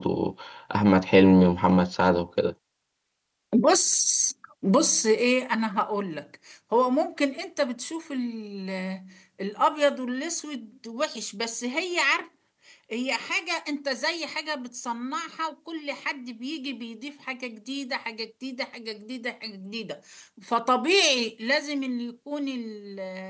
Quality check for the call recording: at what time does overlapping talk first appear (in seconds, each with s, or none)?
none